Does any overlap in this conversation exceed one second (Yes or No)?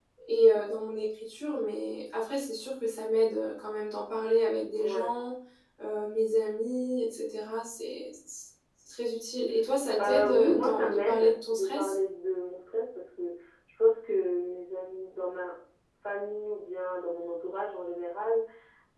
Yes